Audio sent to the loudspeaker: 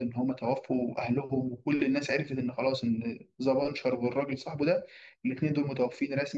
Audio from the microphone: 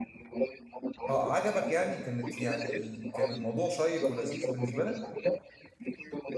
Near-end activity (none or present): present